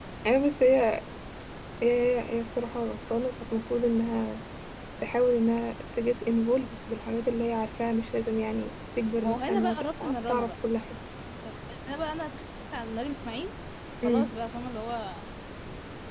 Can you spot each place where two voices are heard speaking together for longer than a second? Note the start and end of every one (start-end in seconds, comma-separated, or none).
9.2-10.5